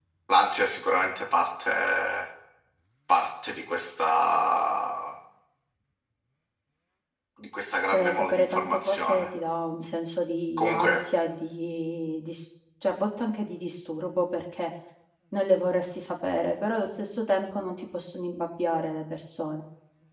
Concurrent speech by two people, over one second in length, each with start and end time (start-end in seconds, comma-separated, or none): 7.9-9.3